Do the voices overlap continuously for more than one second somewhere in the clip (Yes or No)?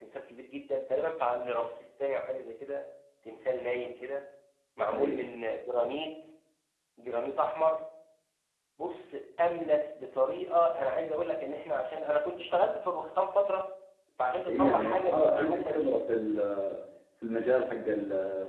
Yes